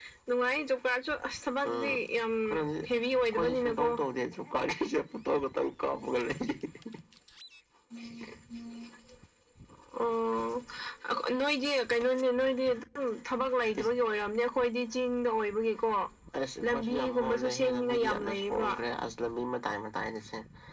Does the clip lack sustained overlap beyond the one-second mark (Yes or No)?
No